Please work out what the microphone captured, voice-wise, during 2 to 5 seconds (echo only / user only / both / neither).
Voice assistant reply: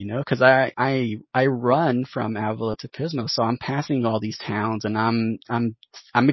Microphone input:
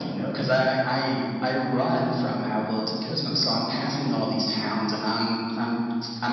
echo only